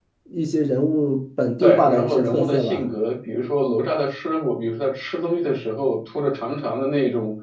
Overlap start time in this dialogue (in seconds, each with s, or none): 1.6 s